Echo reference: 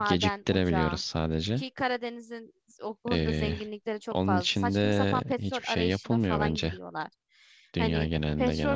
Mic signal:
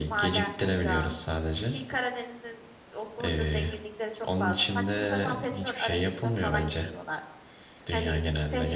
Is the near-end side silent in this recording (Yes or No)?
Yes